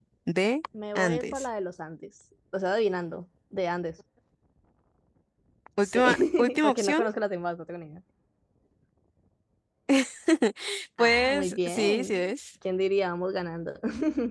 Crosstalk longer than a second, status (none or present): present